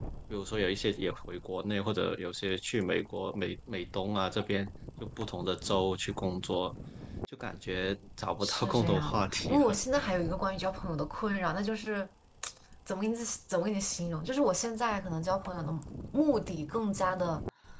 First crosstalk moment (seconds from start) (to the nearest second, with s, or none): 8 s